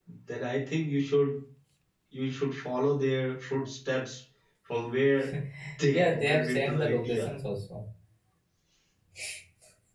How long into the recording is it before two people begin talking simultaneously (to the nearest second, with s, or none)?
6 s